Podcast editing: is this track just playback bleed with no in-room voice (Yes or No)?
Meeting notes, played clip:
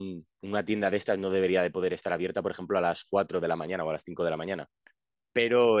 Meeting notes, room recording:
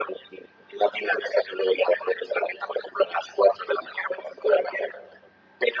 Yes